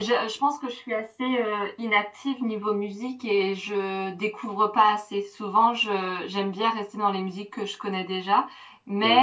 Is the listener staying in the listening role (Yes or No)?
Yes